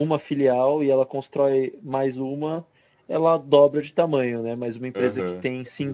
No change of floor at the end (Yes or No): Yes